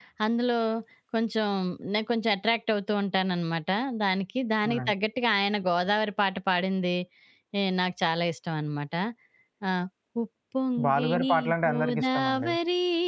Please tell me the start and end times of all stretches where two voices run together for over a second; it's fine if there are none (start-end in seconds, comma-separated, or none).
10.8-12.5